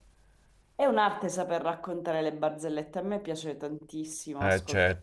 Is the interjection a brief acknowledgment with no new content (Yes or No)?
No